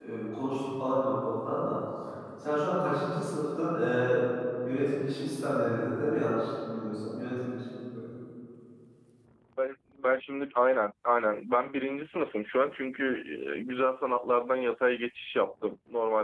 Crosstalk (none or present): none